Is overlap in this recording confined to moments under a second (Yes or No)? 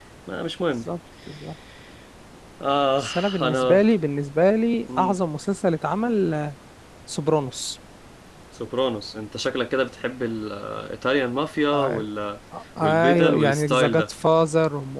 No